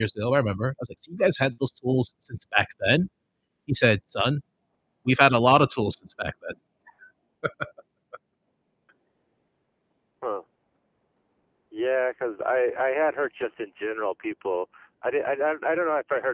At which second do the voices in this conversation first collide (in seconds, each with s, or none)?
none